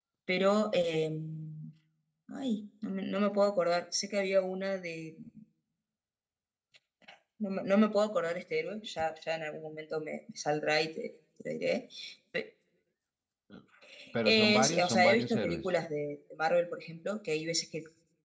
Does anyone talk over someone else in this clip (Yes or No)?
Yes